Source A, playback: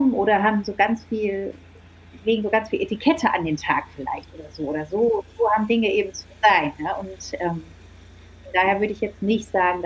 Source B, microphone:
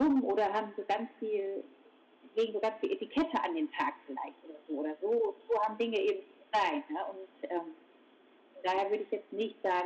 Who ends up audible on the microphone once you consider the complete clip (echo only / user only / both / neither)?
echo only